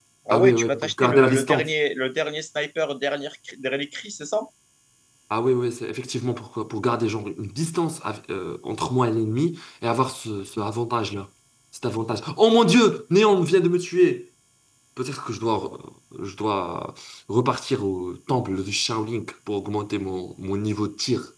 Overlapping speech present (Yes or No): Yes